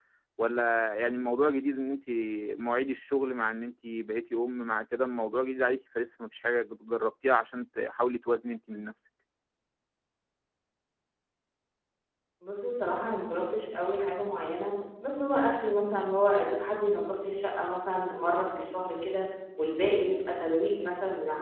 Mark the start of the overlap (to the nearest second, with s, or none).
none